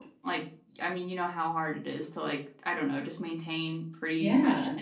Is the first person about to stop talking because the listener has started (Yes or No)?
No